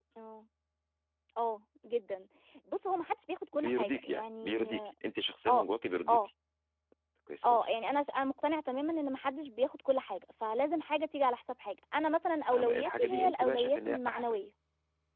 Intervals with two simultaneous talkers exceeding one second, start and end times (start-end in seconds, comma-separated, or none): 3.5-4.7, 12.5-14.4